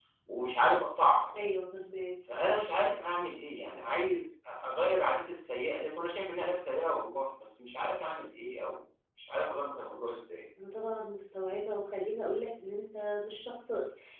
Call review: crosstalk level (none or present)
none